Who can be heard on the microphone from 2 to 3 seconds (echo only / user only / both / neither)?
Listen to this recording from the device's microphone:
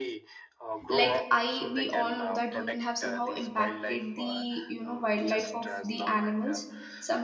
both